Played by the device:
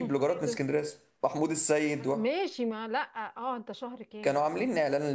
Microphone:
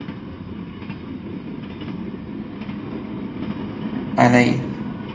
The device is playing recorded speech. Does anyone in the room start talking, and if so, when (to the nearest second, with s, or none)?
4 s